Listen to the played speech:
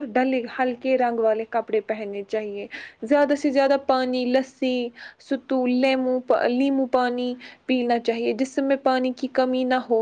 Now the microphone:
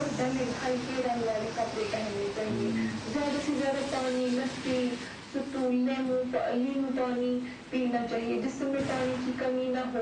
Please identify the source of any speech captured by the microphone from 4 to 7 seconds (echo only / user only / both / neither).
echo only